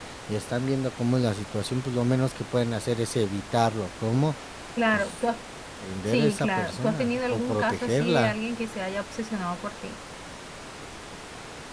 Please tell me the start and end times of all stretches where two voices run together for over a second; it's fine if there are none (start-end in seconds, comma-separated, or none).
6.1-8.3